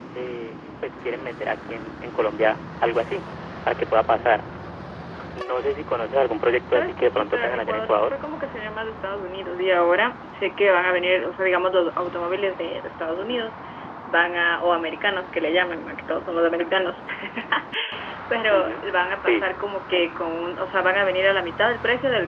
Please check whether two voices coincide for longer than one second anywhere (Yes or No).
Yes